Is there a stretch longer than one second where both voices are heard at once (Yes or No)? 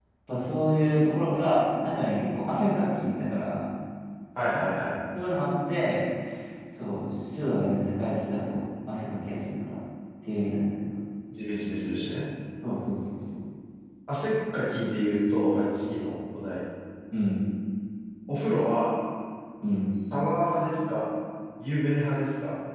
No